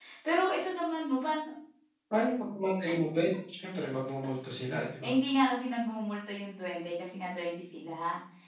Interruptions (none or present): none